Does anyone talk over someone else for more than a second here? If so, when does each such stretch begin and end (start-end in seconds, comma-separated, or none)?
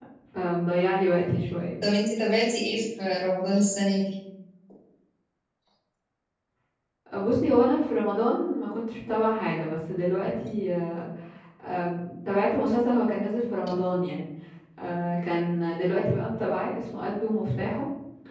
none